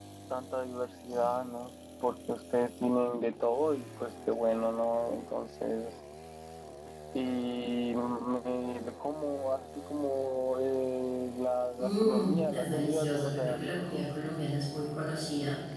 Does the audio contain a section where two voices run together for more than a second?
Yes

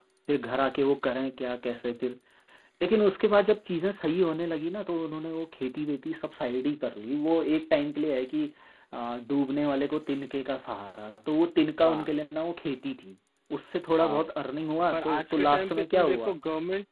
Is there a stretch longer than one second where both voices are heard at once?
Yes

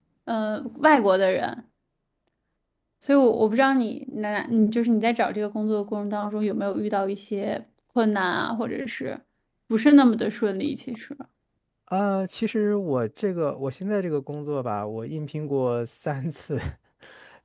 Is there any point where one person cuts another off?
No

